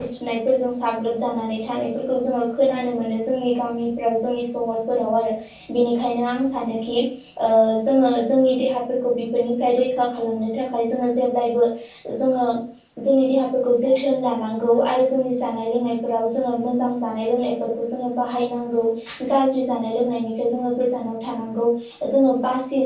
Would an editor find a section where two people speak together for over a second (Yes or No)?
No